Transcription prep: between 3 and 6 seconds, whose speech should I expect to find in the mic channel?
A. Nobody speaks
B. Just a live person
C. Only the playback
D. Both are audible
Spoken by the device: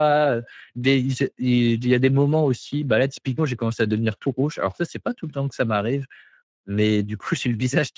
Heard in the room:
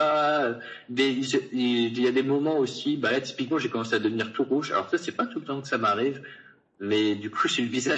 C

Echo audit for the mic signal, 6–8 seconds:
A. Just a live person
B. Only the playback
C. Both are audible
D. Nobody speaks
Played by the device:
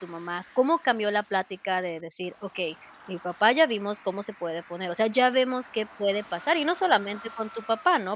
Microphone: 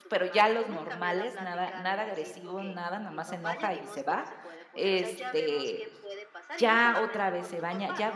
C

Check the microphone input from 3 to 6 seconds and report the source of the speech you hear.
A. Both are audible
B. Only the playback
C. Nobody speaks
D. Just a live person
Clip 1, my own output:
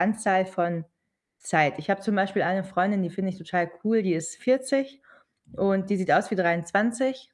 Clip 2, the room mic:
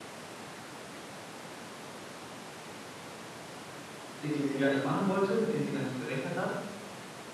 D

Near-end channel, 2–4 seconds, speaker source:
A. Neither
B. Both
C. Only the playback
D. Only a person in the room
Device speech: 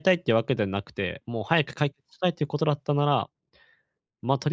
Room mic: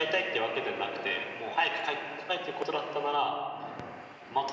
C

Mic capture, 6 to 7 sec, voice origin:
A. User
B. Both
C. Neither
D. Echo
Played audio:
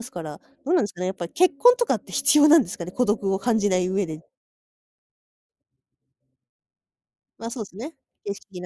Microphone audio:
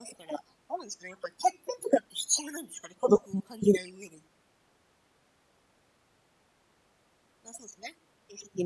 C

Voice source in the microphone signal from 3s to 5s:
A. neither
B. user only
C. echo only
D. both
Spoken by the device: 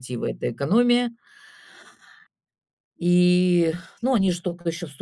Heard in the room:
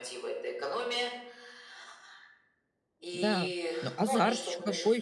D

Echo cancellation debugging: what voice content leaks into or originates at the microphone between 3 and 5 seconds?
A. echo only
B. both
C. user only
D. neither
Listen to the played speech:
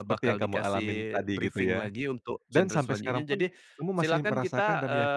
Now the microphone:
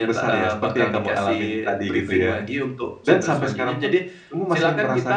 A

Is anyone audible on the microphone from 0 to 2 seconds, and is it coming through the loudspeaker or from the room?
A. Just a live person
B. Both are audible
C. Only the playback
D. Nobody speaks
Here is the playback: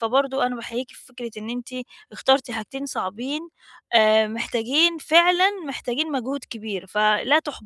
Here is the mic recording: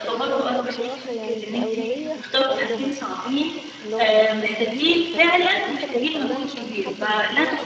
B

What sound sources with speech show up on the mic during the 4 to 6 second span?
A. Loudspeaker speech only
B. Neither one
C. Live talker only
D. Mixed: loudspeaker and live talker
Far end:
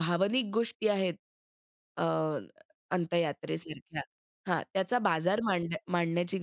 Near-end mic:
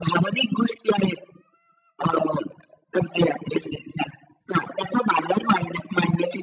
A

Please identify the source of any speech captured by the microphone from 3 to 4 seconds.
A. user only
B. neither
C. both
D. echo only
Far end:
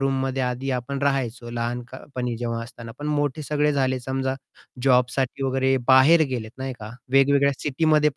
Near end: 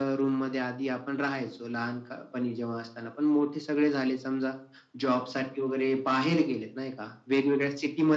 D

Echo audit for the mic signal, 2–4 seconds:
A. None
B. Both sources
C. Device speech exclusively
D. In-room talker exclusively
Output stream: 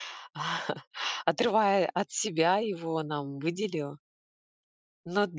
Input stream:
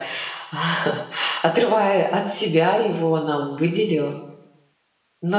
C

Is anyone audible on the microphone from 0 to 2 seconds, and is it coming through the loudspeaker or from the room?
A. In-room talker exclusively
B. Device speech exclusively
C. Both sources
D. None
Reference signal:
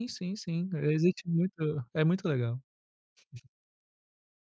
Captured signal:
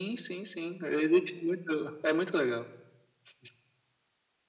B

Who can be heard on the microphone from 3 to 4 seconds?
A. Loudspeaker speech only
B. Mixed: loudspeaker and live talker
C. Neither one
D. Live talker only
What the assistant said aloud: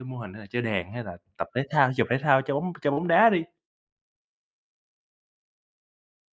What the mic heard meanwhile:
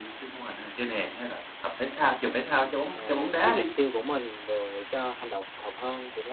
B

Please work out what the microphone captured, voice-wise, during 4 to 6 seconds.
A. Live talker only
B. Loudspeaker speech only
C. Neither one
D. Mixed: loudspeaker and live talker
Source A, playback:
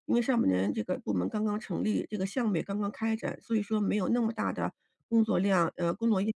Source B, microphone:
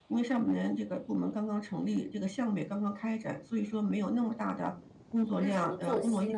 D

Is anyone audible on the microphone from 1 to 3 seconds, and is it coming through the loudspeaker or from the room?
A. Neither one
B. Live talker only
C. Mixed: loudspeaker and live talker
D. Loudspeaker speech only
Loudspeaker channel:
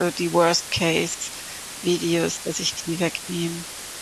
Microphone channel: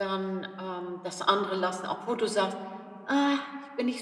B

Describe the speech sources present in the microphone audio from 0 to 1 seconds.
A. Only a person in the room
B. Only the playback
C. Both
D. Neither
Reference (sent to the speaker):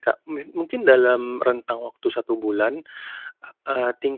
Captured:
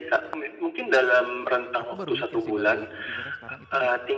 B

